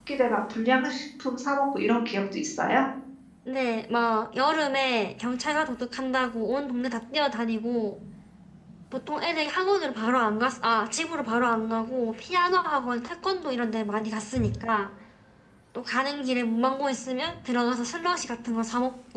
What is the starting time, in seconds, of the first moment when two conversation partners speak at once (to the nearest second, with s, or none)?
none